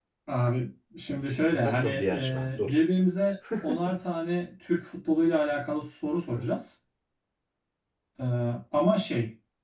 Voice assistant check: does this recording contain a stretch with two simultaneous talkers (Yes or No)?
Yes